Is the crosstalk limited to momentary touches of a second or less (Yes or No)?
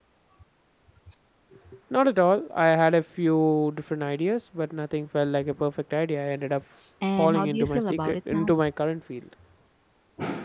No